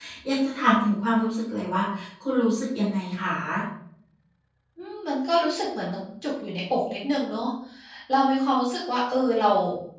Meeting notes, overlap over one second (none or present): none